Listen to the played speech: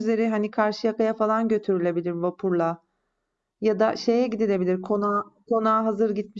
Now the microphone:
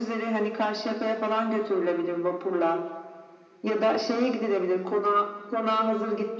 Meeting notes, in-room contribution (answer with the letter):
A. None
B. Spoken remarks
A